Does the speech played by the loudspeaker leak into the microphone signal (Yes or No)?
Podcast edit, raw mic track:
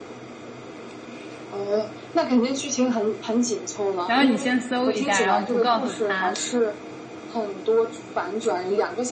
Yes